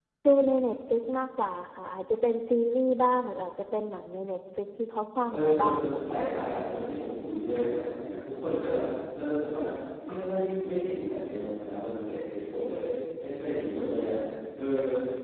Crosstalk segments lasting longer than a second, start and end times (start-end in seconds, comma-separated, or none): 5.2-6.5